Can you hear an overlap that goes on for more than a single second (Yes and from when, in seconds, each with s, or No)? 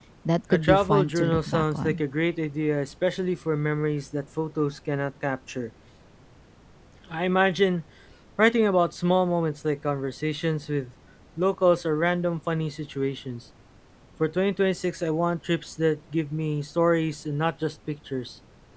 Yes, from 0.5 s